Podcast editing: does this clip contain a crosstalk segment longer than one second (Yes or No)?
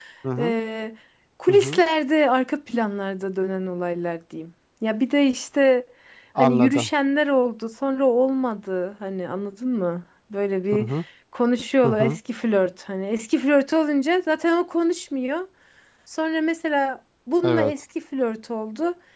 No